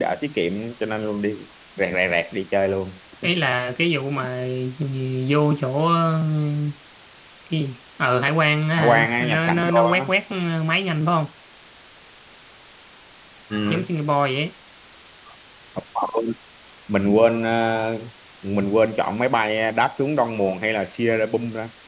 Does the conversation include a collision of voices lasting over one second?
Yes, from 8.8 s

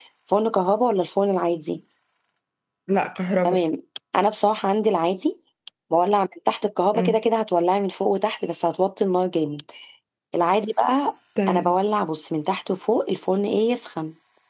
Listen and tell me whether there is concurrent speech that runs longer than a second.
No

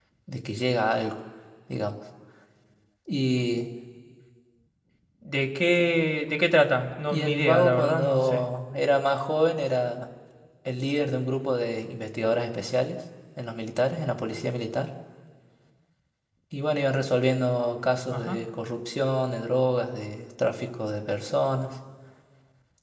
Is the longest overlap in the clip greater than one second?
Yes, from 7.1 s

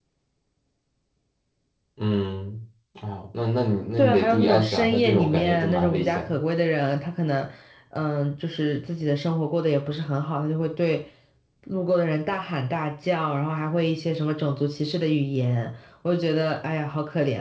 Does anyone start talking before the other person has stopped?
Yes, from 4.0 s

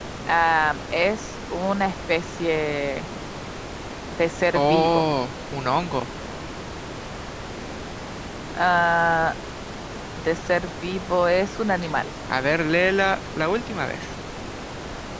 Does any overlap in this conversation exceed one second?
No

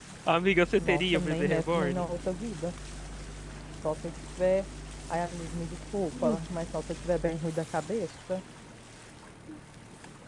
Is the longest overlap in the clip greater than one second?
Yes, from 0.8 s

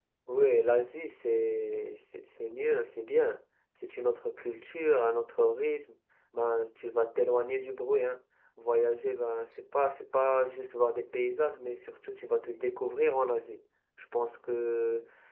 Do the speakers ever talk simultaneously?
No

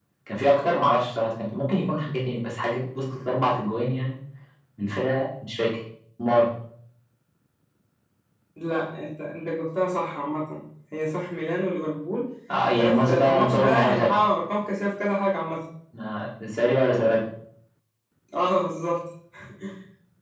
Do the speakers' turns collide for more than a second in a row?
Yes, from 12.8 s

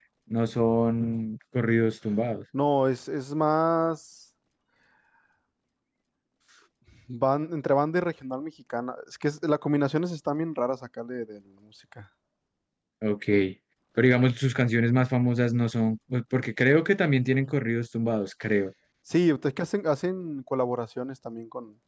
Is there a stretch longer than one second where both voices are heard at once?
No

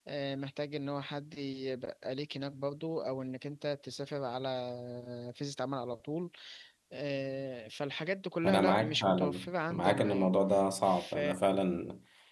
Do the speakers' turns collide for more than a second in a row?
Yes, from 8.4 s

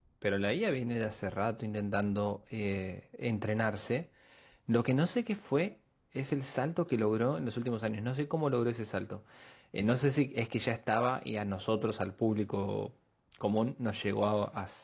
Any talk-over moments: No

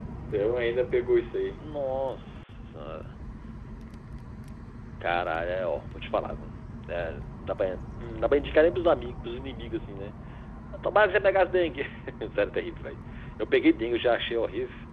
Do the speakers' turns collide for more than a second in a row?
No

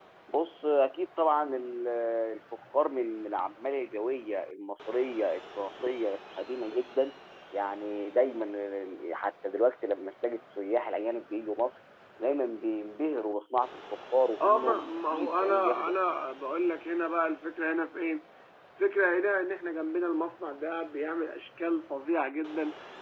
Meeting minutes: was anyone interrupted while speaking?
Yes, from 14.4 s

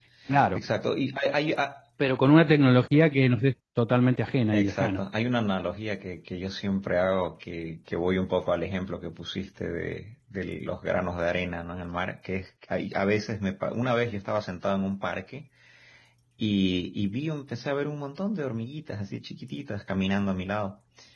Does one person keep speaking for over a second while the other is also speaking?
No

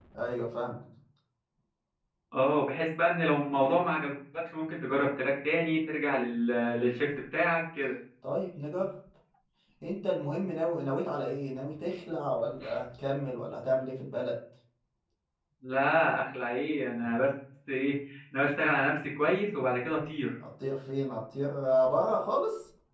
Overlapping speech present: No

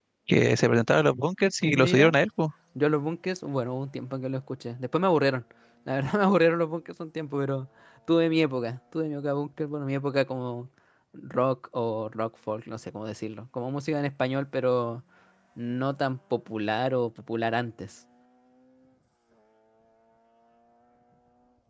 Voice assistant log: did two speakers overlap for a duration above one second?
No

